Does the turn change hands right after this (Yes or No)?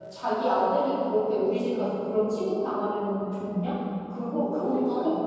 No